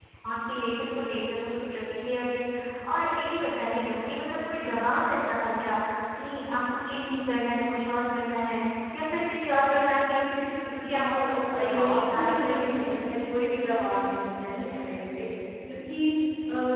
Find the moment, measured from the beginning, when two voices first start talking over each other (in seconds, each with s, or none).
10.9 s